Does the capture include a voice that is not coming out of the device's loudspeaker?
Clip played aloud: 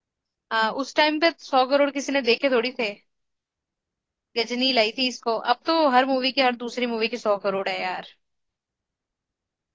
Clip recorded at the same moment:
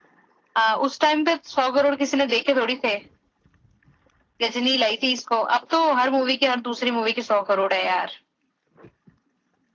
No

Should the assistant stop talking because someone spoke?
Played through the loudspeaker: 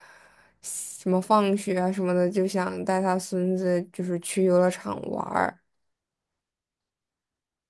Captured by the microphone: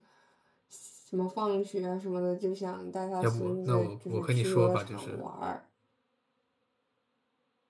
Yes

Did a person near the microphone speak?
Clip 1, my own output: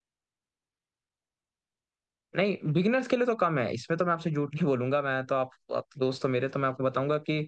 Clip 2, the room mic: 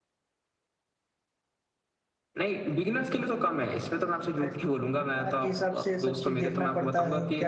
Yes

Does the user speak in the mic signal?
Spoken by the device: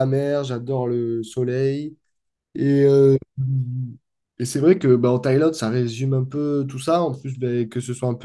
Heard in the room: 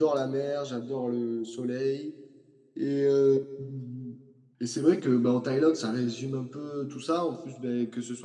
No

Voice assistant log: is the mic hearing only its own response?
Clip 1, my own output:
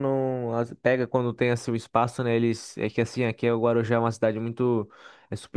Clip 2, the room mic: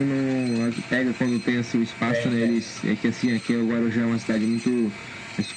No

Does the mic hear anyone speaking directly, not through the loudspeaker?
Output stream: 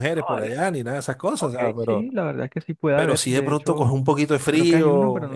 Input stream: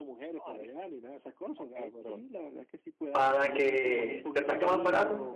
Yes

